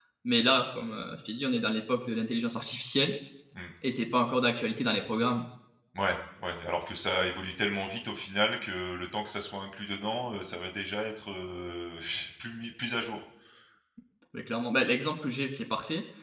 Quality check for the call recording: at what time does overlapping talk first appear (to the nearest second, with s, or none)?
none